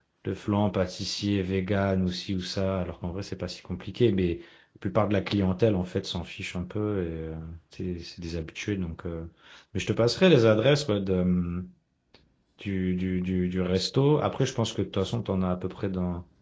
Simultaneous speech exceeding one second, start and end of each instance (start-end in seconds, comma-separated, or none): none